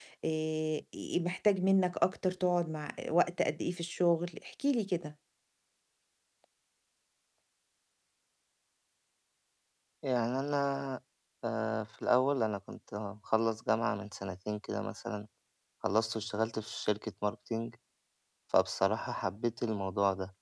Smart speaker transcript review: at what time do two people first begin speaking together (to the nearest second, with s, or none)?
none